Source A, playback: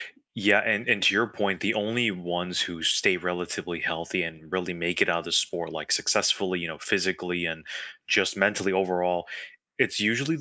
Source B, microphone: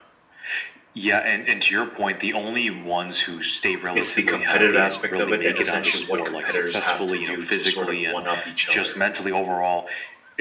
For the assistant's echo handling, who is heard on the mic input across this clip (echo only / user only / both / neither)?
both